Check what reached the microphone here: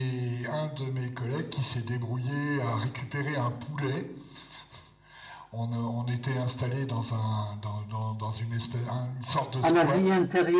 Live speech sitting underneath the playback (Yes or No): No